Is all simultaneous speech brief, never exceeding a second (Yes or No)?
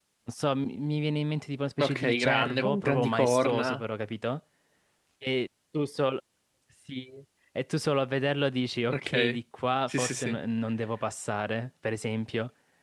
No